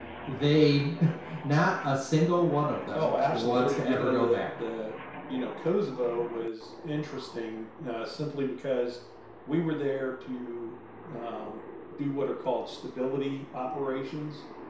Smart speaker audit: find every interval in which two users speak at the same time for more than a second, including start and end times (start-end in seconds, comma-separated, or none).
2.9-4.4